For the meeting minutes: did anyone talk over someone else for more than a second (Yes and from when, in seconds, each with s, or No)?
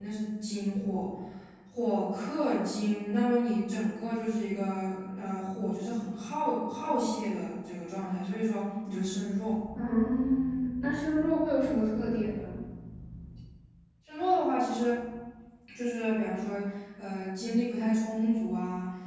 No